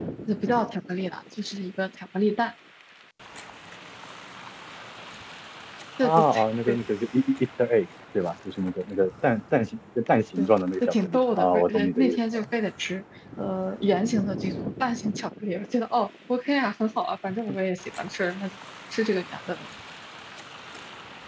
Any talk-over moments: Yes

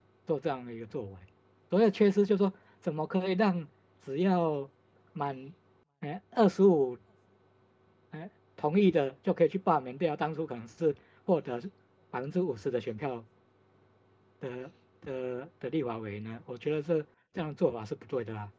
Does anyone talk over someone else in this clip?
No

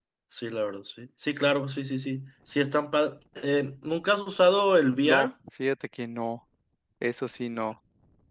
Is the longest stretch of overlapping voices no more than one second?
Yes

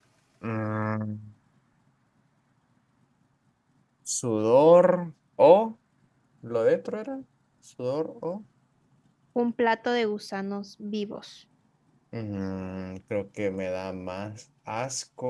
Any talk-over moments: No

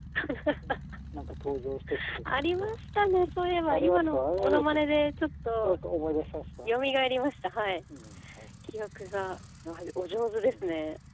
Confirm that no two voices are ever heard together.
No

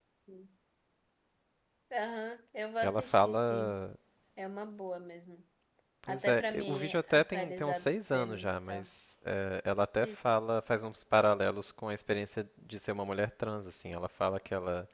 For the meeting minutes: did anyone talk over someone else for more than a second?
Yes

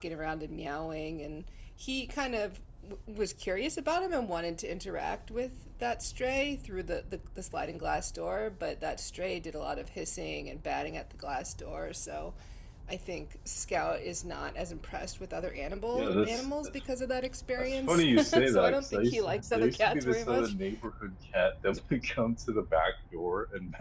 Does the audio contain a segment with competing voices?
Yes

